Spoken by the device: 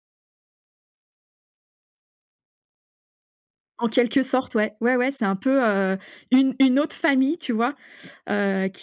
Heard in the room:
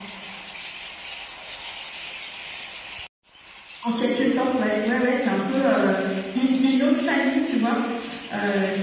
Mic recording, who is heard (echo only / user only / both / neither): echo only